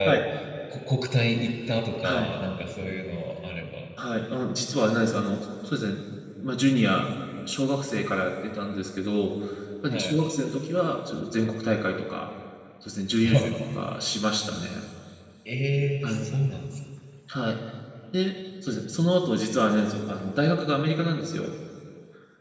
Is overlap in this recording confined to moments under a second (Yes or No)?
Yes